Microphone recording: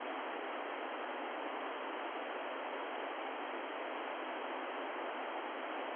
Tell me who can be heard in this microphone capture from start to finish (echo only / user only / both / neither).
neither